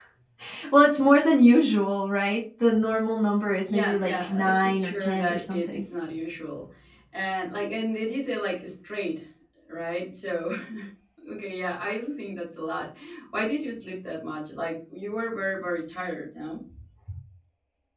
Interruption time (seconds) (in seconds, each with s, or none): 3.7 s